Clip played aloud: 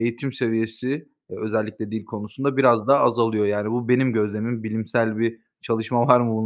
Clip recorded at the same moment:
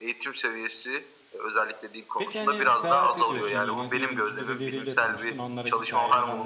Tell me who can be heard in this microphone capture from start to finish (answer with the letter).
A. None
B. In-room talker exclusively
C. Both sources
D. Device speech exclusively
C